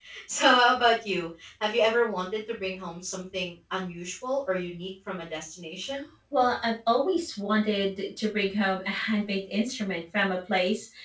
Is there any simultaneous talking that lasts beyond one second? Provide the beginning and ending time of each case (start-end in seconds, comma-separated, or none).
none